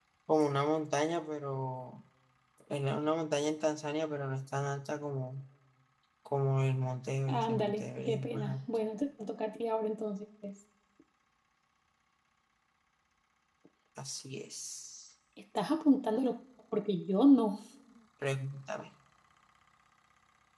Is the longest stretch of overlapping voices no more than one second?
No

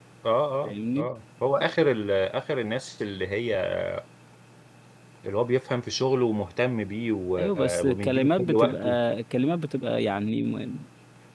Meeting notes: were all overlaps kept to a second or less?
No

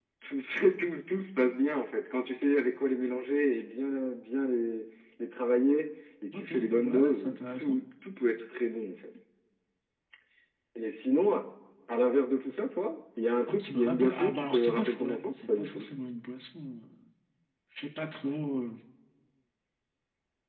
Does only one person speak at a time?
No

